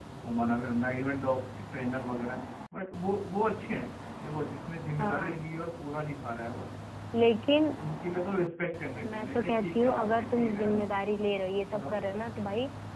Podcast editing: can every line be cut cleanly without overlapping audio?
No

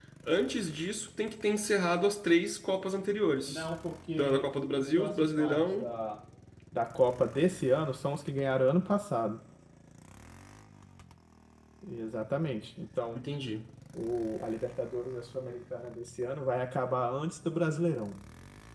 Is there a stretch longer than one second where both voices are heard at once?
Yes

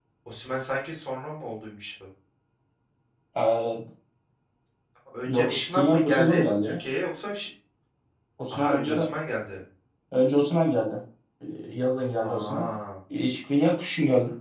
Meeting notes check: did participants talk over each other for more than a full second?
Yes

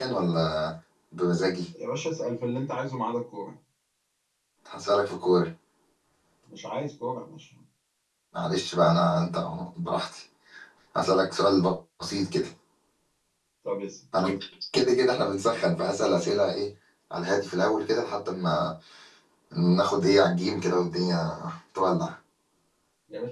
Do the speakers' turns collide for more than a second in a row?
No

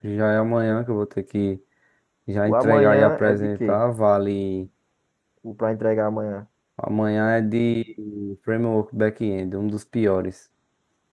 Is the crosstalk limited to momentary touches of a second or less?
No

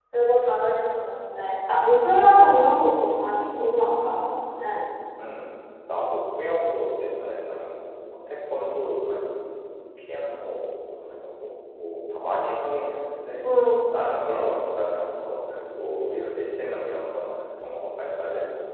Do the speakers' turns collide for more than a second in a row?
No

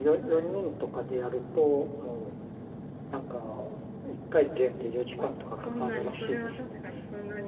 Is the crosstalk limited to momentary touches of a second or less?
No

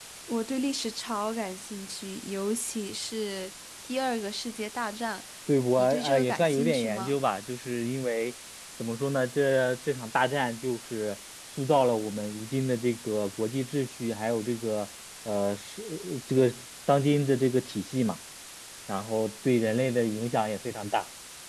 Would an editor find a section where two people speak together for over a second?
Yes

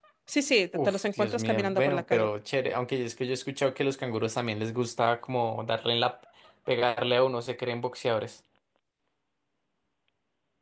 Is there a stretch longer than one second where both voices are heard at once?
Yes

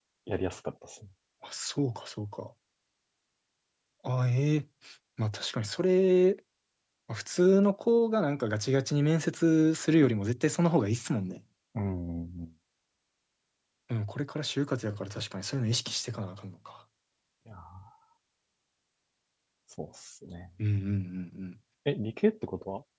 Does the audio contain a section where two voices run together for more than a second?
No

